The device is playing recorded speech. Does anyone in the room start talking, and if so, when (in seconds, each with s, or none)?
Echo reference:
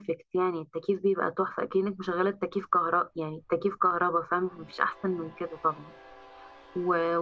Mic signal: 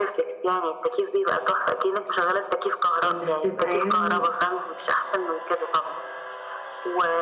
3.0 s